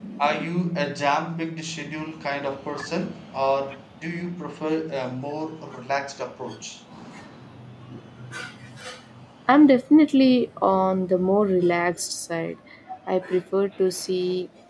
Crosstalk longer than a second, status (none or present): none